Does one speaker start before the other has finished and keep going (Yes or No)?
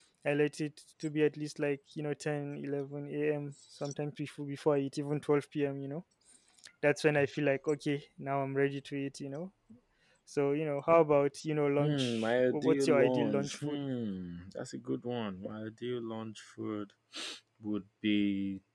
Yes